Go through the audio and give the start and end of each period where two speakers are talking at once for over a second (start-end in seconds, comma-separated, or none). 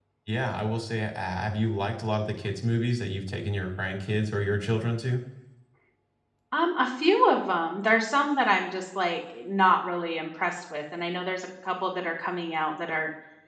none